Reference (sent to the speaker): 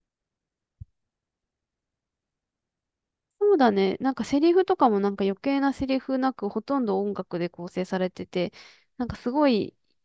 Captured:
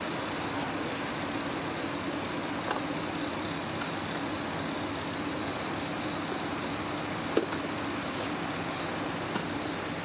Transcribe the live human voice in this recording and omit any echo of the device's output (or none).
none